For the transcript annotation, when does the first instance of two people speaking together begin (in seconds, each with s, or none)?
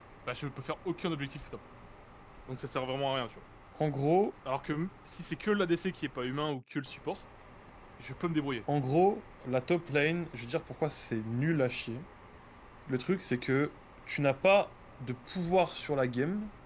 none